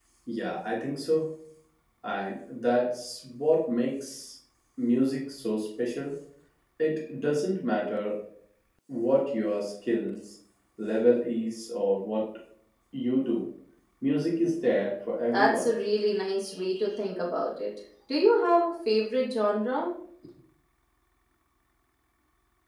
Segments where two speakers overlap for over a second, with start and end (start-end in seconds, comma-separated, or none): none